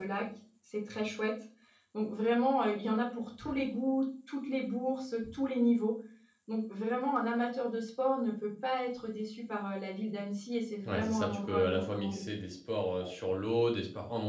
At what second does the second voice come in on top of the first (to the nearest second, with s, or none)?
11 s